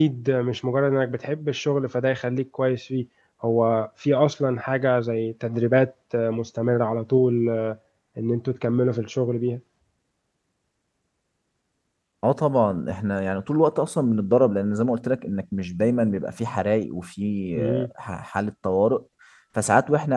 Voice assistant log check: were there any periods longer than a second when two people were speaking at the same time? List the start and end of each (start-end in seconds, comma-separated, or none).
none